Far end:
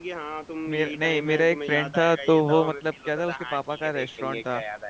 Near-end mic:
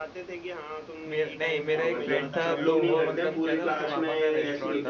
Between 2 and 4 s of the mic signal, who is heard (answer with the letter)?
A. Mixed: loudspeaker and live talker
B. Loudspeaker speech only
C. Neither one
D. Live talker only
A